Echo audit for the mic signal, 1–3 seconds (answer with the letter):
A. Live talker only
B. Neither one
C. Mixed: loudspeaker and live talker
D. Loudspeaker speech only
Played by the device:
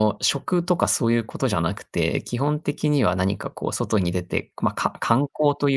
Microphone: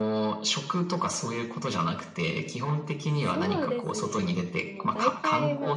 D